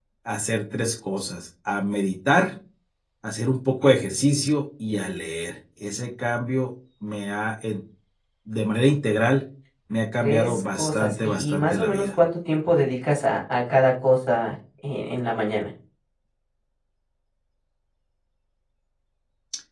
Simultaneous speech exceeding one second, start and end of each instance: 10.2-12.1

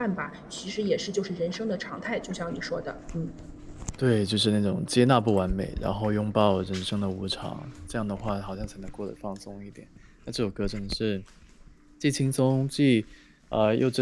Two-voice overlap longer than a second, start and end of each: none

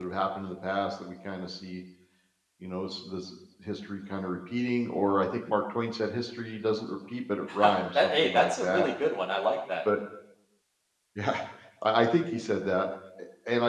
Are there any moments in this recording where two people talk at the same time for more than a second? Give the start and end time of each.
7.5-8.9

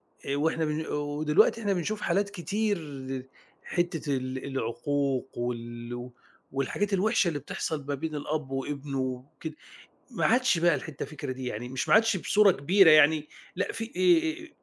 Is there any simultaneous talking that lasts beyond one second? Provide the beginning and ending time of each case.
none

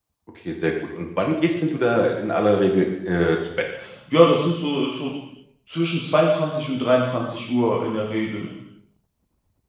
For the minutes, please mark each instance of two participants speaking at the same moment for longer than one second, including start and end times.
none

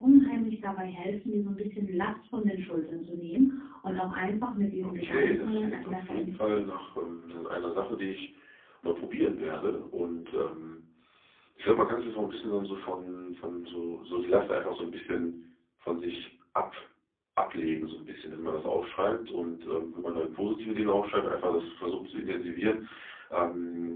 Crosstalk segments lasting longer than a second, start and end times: 4.8-6.7

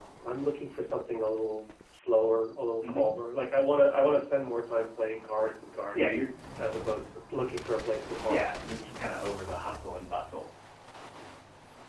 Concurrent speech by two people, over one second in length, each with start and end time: none

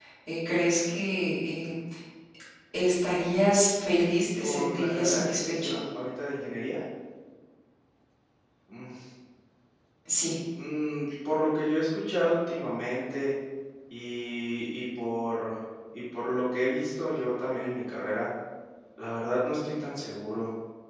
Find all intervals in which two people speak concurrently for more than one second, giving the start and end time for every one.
4.4-5.8

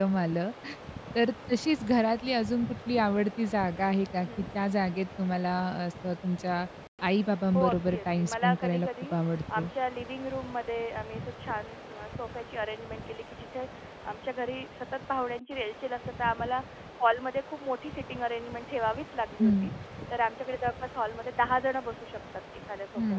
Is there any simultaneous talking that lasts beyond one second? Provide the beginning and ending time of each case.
7.5-9.1

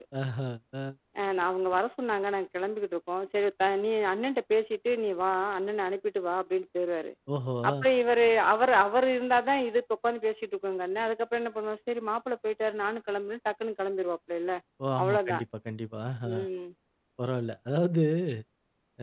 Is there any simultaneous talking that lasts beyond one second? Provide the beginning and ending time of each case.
none

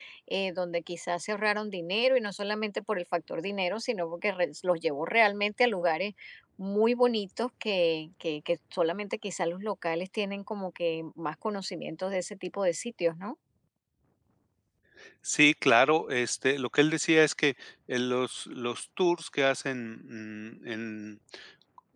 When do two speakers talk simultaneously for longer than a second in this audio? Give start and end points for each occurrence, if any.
none

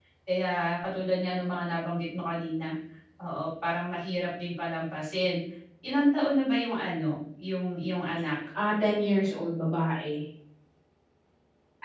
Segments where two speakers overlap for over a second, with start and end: none

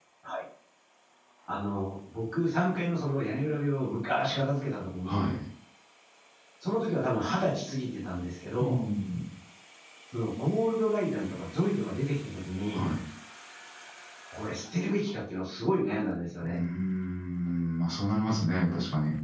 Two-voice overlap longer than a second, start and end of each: none

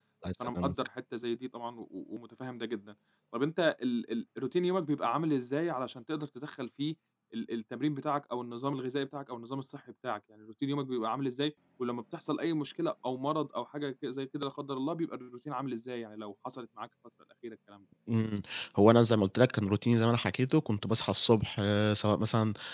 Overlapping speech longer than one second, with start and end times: none

